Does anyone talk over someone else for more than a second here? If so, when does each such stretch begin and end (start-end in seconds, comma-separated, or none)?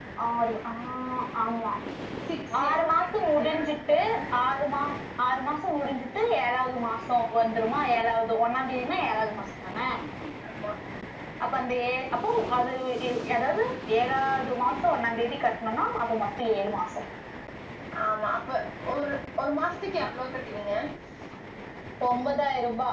2.6-4.0